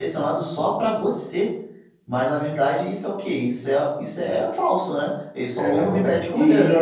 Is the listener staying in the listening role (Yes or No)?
No